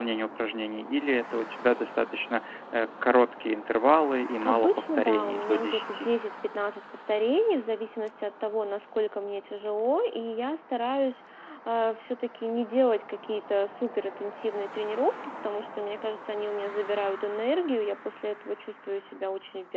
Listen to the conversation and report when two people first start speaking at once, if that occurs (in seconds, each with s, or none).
4.4 s